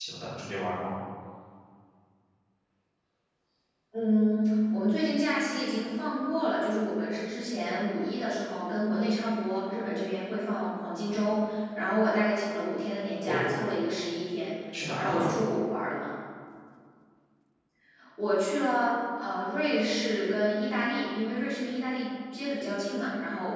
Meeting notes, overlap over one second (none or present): none